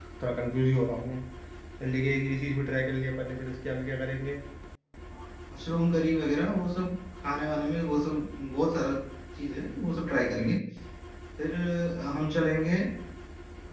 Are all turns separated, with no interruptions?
Yes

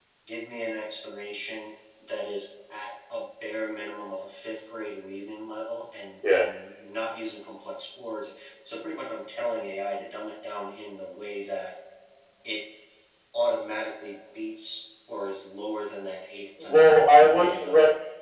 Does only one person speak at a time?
No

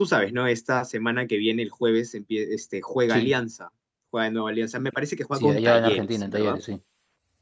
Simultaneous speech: Yes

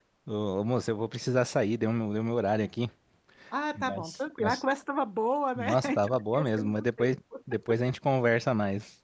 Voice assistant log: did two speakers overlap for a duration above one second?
Yes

